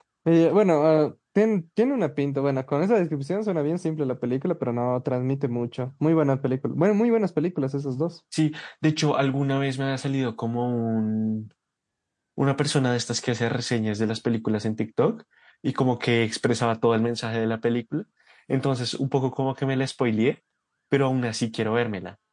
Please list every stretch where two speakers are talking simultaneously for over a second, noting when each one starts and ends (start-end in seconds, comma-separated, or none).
none